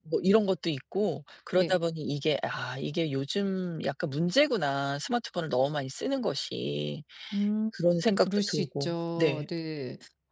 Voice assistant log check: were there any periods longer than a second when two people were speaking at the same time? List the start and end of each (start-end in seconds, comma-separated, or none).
8.2-9.4